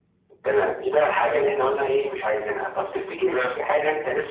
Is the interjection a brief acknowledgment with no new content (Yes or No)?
Yes